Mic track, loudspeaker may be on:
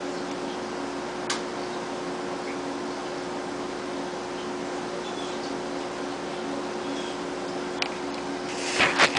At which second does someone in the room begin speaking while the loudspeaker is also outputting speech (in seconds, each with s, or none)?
none